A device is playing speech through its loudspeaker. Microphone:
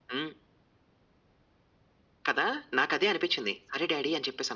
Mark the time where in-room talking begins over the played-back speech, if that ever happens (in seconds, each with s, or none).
none